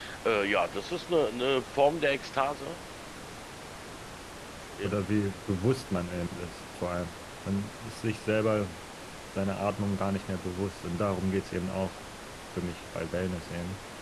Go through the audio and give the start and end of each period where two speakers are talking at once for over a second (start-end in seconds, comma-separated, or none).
none